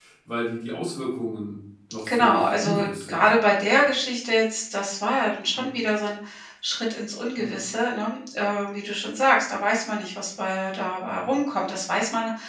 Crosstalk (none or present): present